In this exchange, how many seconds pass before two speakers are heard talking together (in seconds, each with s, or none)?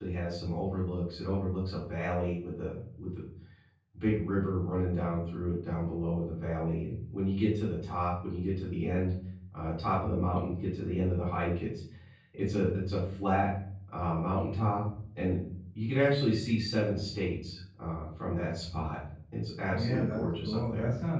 19.7 s